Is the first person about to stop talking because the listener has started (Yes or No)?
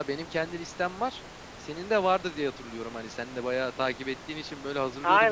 Yes